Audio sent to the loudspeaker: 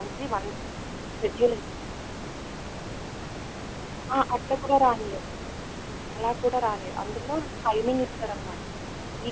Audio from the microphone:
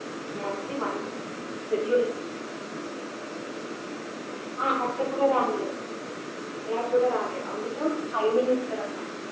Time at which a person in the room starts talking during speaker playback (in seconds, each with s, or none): none